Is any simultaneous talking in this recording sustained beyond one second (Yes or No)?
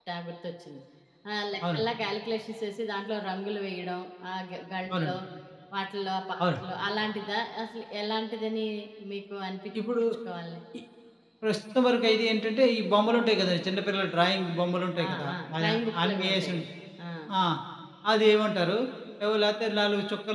Yes